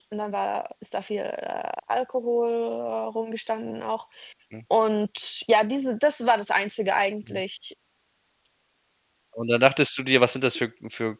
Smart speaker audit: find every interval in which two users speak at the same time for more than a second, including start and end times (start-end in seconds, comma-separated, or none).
none